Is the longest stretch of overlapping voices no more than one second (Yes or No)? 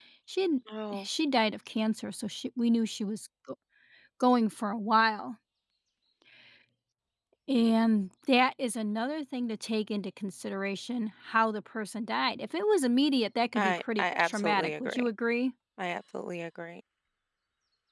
No